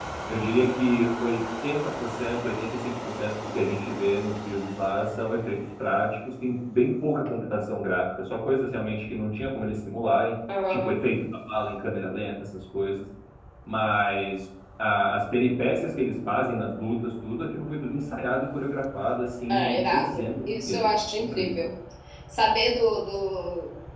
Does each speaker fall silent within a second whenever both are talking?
No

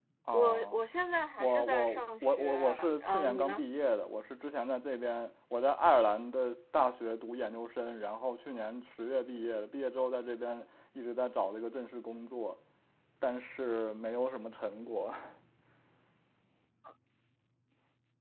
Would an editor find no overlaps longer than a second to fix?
No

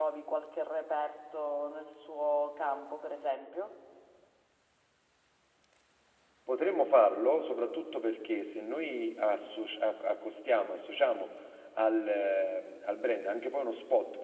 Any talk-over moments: No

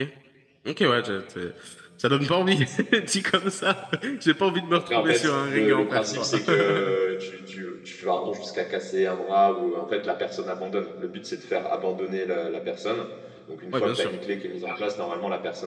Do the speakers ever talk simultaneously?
Yes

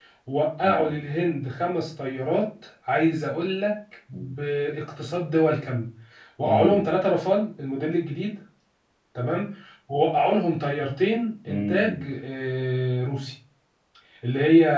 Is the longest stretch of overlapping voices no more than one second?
Yes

